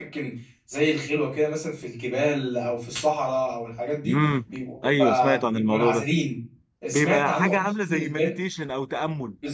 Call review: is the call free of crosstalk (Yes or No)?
No